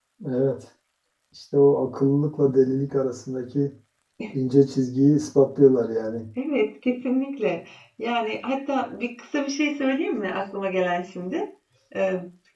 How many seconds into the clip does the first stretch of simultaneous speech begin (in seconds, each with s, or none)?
none